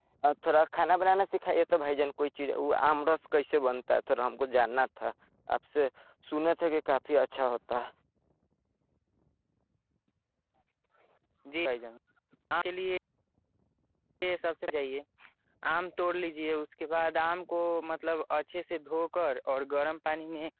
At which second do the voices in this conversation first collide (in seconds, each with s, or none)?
none